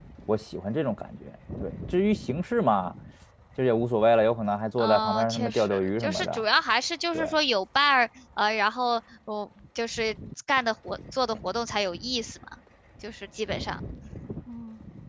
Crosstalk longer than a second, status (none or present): present